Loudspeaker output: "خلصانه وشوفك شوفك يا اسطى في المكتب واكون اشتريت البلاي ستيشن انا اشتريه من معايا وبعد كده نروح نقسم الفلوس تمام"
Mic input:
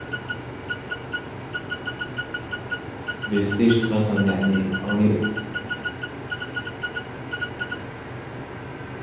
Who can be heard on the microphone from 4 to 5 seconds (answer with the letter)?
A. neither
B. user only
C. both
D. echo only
B